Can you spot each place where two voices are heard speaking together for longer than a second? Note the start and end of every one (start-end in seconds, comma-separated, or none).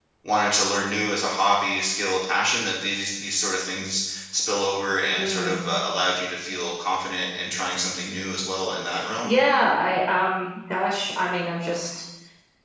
none